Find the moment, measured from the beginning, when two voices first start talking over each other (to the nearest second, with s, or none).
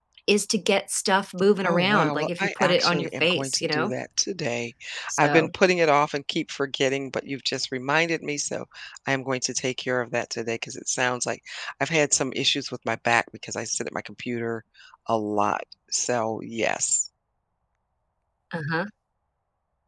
2 s